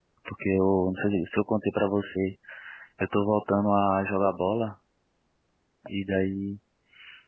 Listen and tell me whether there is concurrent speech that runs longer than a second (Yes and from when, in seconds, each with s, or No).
No